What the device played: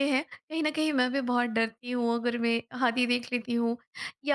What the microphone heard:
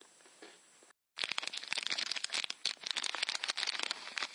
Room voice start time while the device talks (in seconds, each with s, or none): none